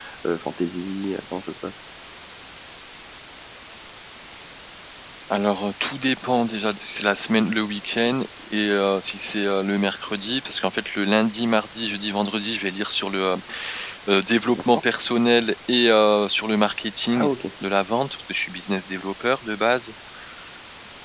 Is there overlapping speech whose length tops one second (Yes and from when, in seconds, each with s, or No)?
No